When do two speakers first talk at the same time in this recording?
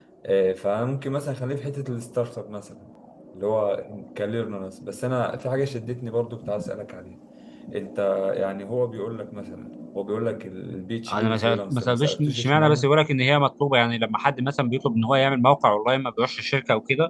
11.1 s

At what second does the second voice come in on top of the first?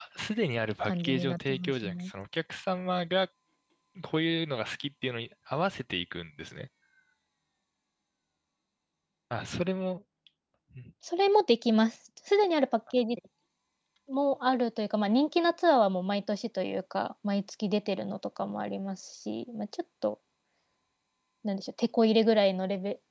0.8 s

